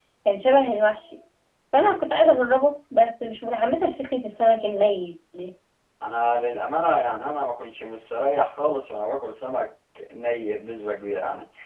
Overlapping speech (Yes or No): No